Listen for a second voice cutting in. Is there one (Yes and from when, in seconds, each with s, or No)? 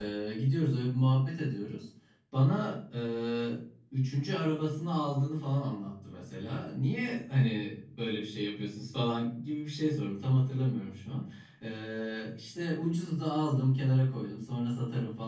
No